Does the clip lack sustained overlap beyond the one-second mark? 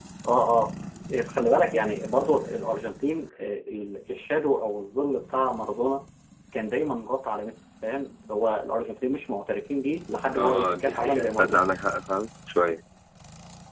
No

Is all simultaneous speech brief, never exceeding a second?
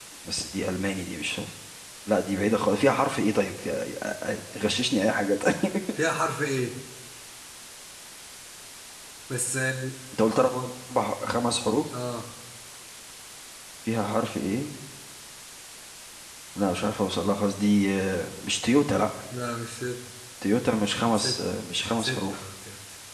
Yes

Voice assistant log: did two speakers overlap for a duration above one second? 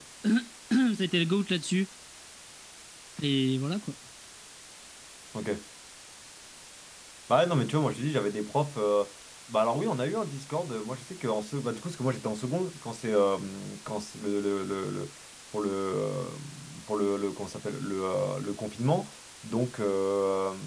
No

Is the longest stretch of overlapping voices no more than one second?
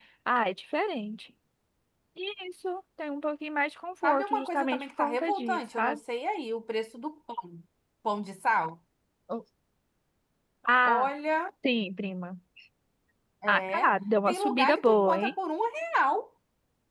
No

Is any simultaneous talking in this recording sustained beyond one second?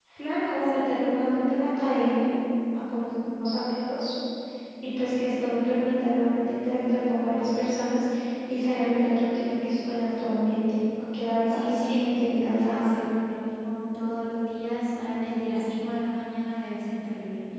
Yes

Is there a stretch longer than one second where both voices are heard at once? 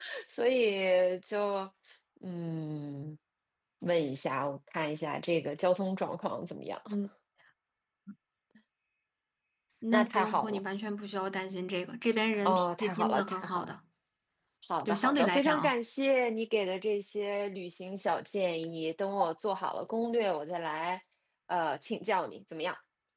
Yes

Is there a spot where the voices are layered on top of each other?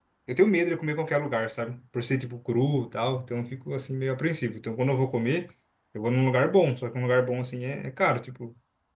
No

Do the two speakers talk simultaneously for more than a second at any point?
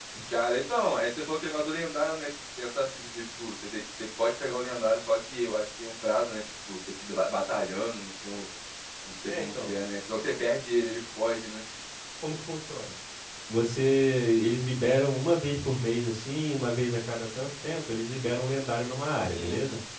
No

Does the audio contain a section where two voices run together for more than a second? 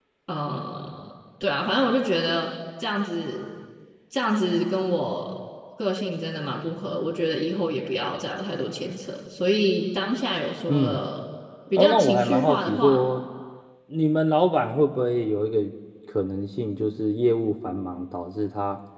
Yes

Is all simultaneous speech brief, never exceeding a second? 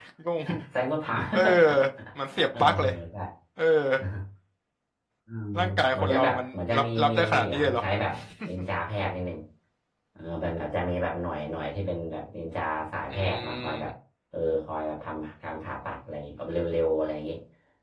No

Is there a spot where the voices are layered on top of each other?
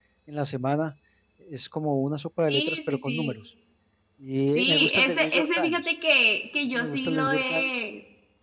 Yes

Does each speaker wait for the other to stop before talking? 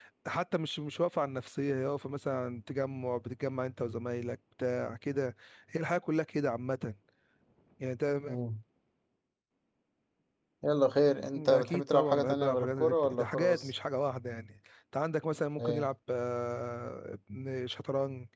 No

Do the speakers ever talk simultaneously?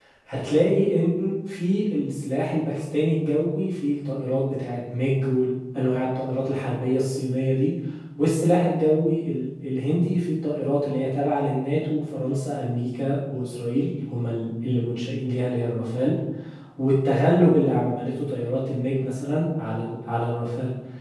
No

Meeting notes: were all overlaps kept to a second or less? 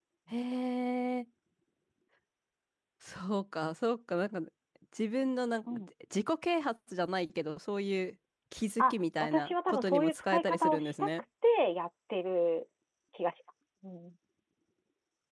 No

